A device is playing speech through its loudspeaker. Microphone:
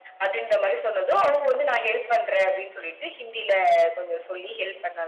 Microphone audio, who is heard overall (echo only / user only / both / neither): echo only